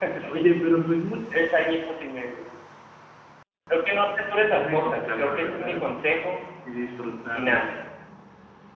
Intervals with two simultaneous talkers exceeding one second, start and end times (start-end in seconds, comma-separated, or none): 4.5-5.8